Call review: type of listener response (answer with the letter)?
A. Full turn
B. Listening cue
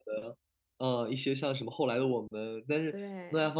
B